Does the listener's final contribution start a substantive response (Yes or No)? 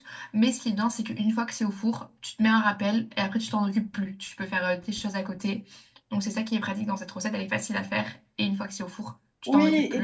Yes